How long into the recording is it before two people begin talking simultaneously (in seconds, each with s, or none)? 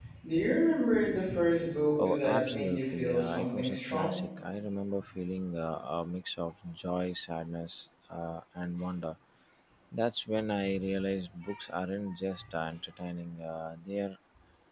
2.0 s